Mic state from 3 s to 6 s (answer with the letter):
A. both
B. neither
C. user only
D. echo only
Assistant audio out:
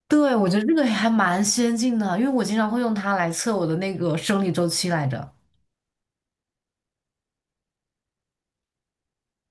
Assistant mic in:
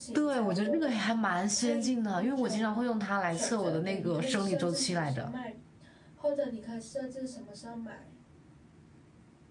A